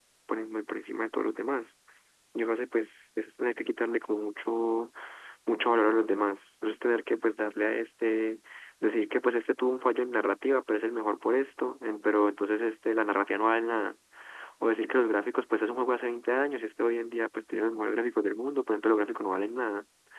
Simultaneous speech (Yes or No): No